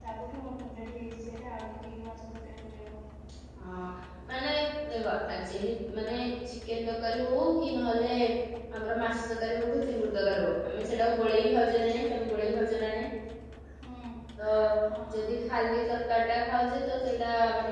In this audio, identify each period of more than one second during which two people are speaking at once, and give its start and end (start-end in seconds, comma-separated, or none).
none